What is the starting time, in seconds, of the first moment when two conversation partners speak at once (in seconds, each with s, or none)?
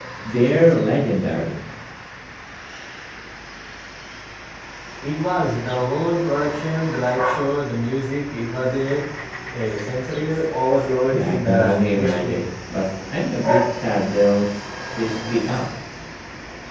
11.1 s